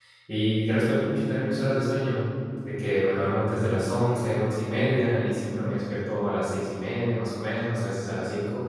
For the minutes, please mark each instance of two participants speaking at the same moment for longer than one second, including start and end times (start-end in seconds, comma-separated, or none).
none